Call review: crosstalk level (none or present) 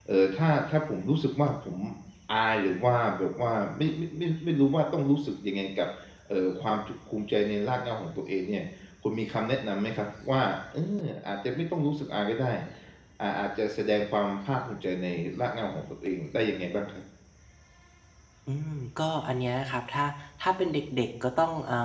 none